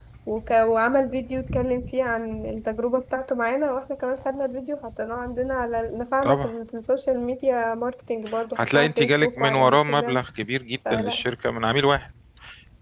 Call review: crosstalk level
present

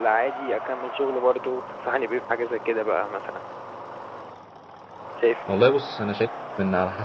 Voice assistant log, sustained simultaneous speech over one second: none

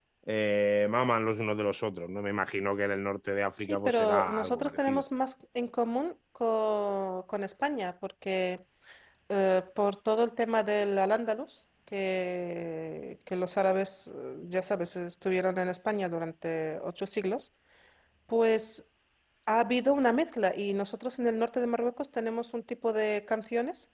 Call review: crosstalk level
present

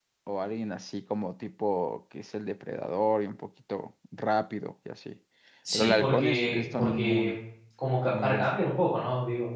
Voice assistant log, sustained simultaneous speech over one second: present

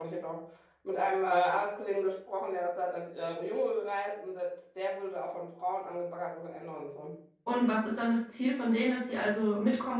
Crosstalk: none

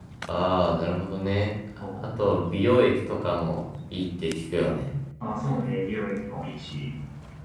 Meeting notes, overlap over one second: none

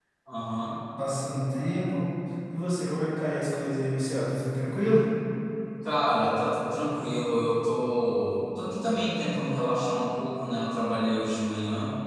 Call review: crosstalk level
none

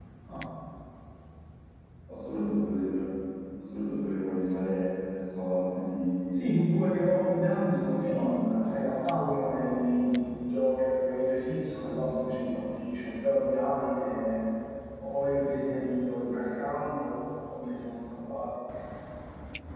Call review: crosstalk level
present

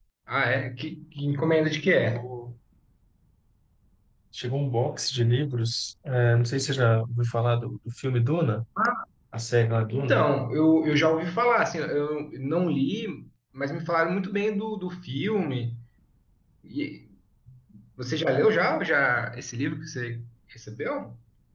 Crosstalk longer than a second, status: none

